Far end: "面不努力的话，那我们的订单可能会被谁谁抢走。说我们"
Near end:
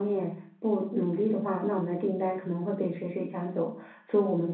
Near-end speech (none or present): none